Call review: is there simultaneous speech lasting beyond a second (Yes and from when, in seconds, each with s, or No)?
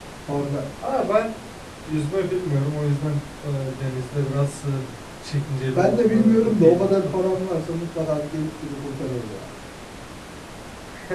Yes, from 5.8 s